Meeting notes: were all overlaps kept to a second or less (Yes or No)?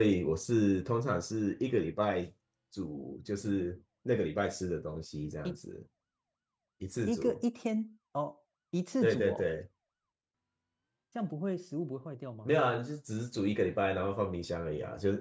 Yes